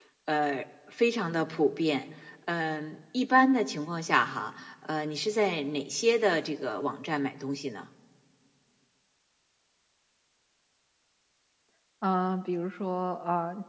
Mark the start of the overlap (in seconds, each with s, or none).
none